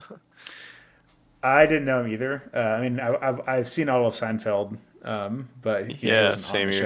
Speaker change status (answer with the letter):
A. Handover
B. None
A